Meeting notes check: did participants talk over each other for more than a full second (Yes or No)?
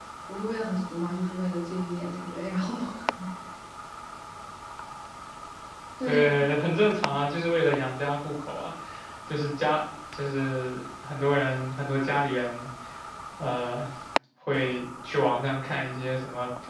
No